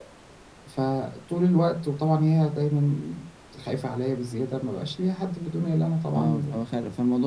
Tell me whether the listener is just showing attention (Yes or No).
No